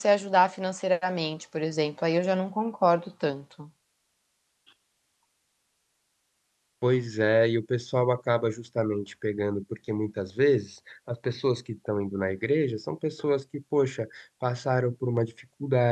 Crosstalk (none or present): none